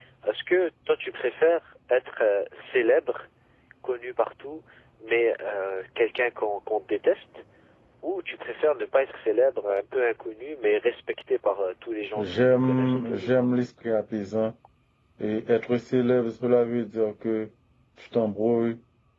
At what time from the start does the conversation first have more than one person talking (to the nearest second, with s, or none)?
12 s